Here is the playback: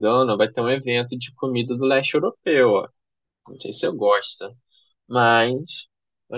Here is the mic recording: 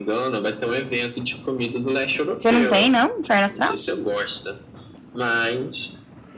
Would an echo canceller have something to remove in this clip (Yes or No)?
Yes